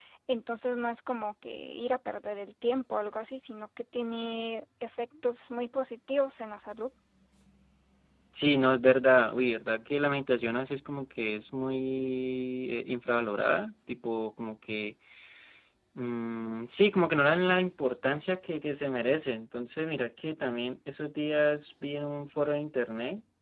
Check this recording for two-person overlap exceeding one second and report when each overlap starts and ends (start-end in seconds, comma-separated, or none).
none